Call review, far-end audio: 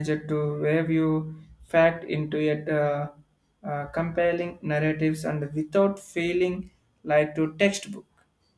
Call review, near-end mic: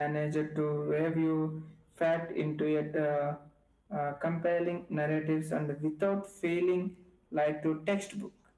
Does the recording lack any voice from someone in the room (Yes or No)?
Yes